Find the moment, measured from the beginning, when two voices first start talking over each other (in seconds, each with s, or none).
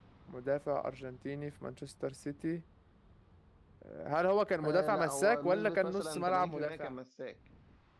4.6 s